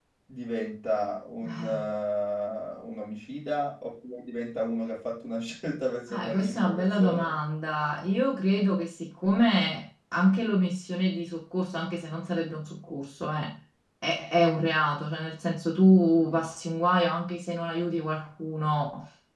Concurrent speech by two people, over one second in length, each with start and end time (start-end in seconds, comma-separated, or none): 6.1-7.3